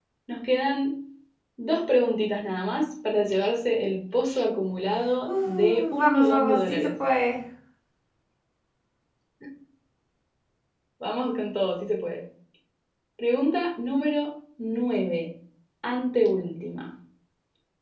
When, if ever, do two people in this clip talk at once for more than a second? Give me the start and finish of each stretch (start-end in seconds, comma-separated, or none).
5.3-6.9